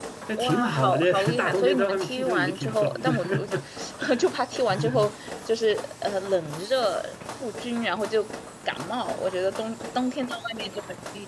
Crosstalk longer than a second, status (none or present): present